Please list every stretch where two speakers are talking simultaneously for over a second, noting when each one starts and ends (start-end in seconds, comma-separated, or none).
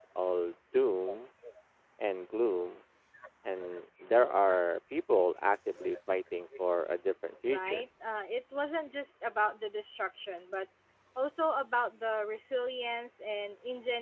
none